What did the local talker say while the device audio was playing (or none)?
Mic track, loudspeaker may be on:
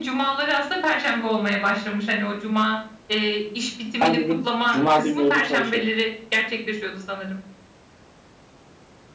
Ben dedim cuma günleri de çalışırım.